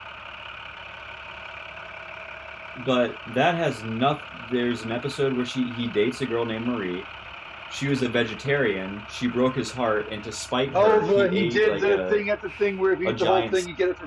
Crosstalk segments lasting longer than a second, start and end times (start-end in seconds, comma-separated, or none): 10.7-12.2